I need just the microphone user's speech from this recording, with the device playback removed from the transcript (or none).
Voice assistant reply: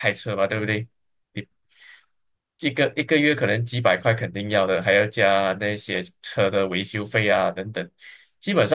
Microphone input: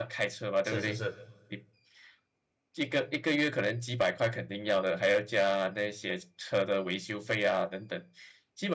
是是是